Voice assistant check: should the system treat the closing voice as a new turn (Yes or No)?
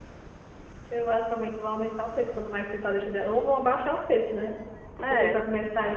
No